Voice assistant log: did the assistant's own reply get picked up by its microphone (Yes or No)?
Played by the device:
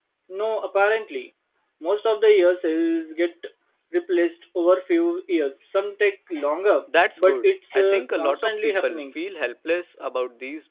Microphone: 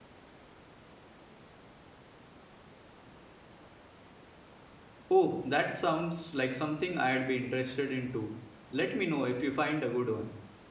No